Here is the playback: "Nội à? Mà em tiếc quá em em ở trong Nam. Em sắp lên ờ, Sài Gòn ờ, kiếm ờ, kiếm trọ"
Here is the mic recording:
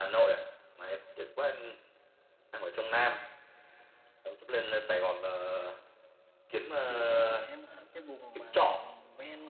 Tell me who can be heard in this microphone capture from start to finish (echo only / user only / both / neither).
both